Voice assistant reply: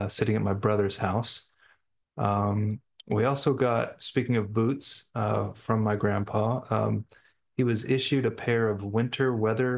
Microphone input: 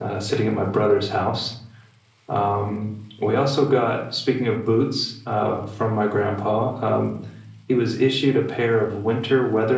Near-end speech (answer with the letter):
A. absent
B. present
A